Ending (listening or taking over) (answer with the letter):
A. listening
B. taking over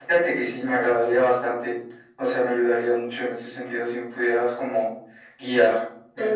B